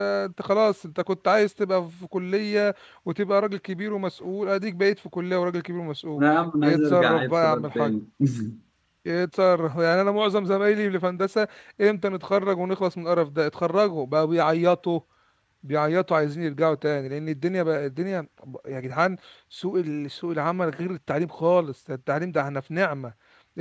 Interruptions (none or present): present